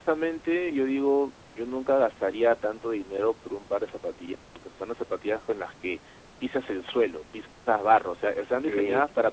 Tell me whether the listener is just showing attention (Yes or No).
Yes